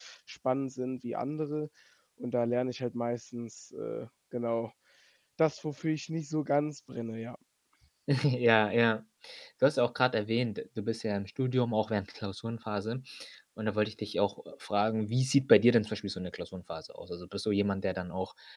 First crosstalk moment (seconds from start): none

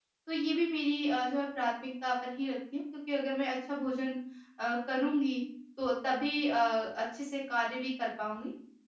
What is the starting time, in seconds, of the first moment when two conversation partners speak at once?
none

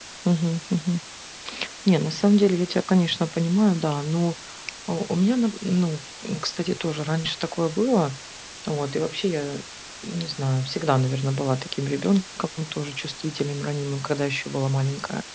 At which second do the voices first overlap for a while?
none

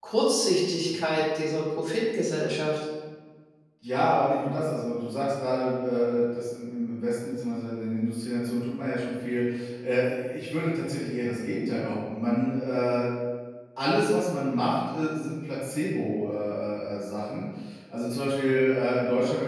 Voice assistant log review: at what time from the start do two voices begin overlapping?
none

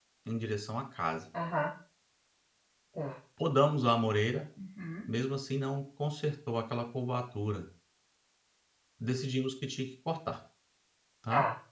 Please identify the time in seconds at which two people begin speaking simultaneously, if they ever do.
none

